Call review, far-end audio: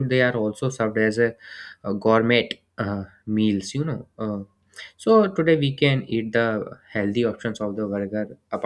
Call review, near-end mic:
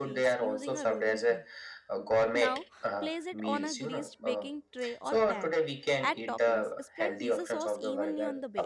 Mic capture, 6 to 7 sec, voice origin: both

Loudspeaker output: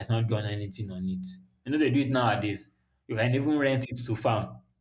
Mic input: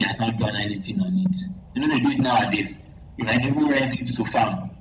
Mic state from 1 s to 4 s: echo only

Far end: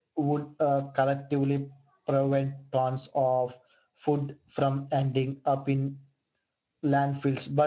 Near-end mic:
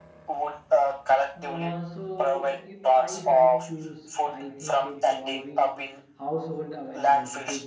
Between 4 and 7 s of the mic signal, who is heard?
both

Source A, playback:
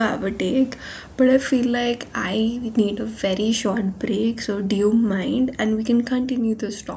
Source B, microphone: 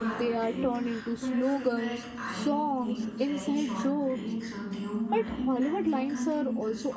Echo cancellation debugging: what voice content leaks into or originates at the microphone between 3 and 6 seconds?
both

